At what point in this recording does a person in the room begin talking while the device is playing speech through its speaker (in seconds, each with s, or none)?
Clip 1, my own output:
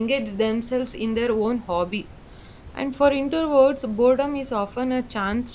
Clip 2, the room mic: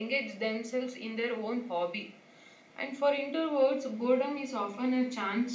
none